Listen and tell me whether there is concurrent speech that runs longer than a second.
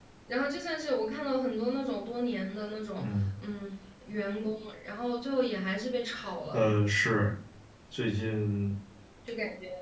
No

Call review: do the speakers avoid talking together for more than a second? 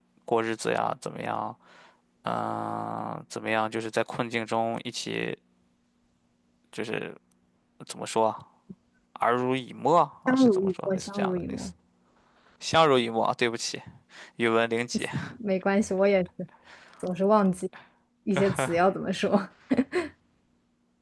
No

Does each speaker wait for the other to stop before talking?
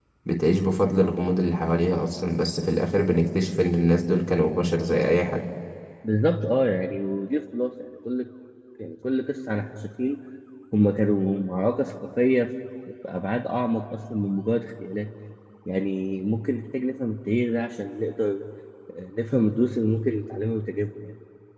Yes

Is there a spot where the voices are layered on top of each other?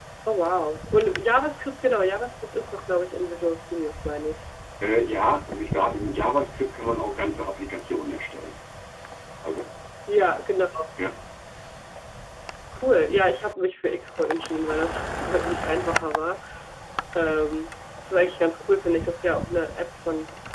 No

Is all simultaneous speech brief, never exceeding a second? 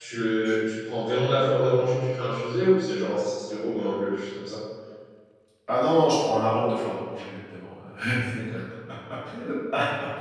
Yes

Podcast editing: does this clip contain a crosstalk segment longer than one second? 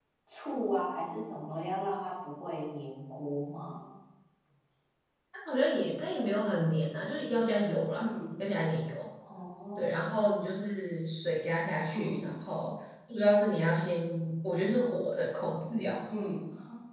No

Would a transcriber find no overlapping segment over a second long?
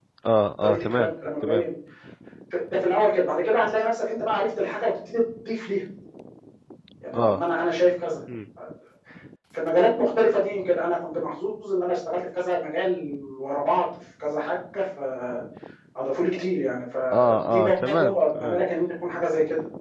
No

